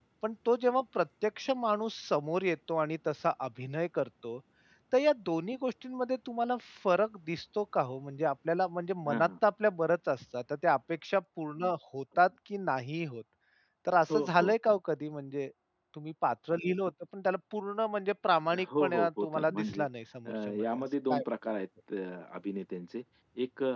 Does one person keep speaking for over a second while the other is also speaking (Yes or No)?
Yes